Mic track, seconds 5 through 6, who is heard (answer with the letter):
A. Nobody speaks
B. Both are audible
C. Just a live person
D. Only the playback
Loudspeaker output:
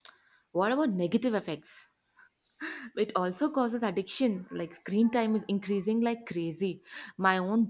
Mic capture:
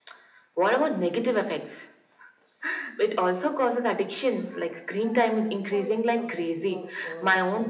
B